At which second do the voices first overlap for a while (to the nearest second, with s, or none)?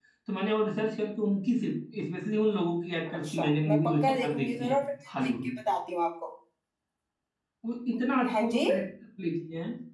3 s